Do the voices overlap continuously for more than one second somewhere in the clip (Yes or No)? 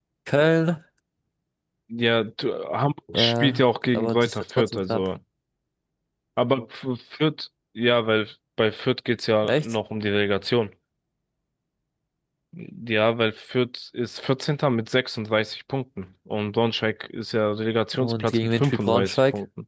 Yes